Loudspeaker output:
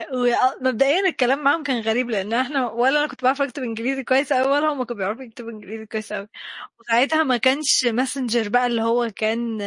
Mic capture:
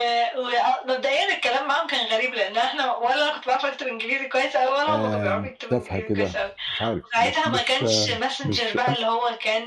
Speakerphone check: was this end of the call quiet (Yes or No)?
No